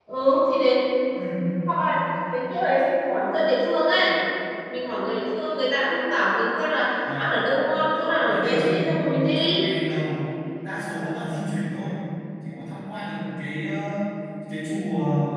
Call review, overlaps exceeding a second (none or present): present